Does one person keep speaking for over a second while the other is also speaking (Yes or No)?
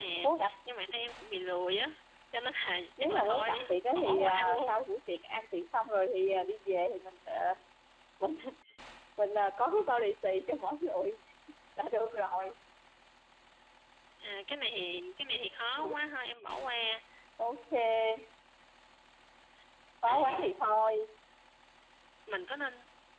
Yes